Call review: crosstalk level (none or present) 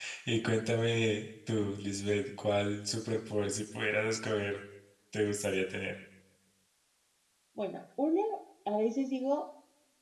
none